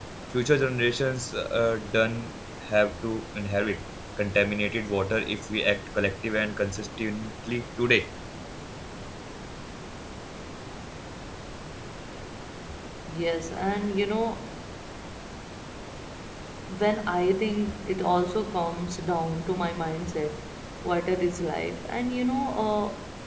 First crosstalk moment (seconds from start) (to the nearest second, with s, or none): none